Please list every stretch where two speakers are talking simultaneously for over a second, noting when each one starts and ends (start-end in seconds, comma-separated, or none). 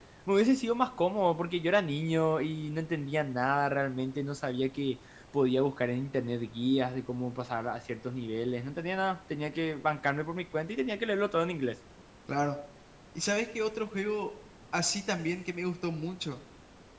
none